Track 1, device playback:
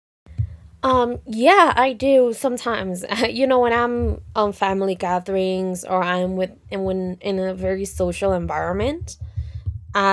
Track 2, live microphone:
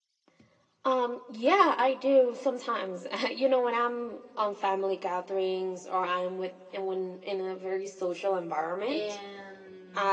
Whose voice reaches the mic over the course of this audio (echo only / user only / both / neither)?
both